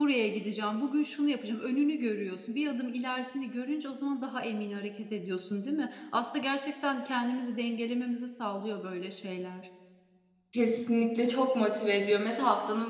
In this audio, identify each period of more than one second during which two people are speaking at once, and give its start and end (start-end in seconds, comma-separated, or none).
none